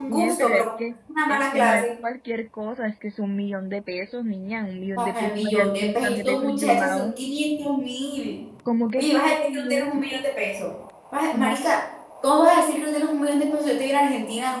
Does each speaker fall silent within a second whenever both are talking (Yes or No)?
No